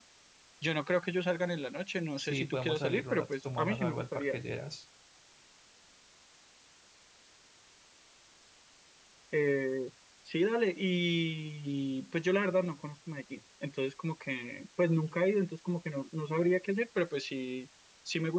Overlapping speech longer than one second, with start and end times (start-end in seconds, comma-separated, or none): 2.2-4.4